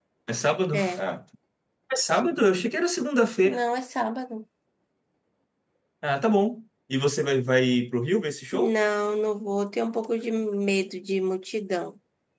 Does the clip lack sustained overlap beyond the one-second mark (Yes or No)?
Yes